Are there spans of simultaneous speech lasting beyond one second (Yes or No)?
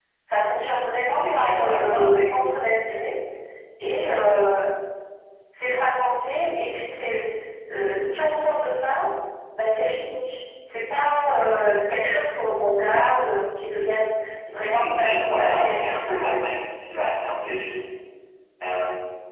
Yes